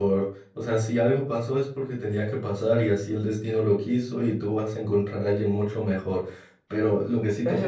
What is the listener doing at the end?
taking over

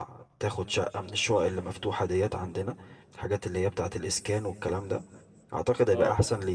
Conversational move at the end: listening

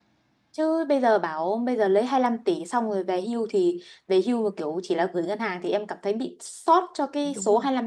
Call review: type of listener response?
taking over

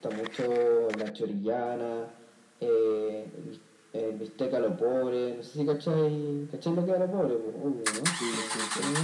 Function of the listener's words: taking over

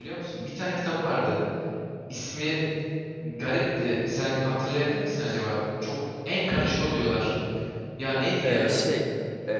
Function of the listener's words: taking over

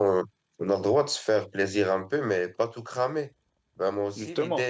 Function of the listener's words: listening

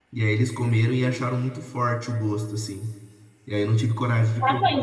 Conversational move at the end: taking over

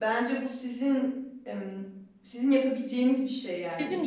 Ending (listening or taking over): listening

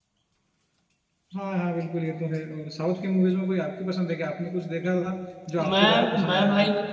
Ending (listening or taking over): taking over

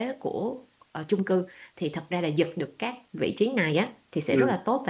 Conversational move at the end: listening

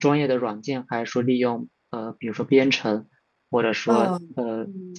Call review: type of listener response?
taking over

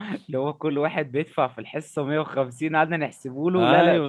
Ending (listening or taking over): taking over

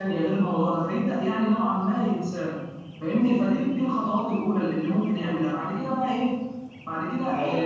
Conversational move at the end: taking over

